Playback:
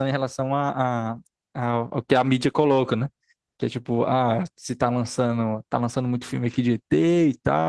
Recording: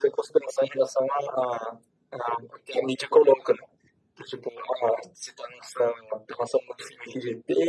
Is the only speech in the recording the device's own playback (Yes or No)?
Yes